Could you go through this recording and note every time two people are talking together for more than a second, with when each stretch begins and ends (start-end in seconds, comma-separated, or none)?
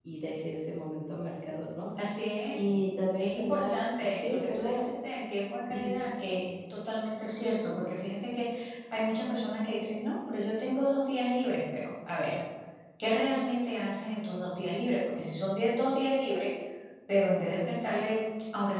3.2-4.8